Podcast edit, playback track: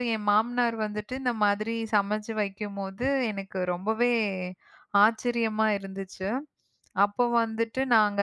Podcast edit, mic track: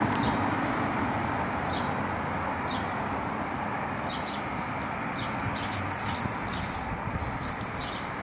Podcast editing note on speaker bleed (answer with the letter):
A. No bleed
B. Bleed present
A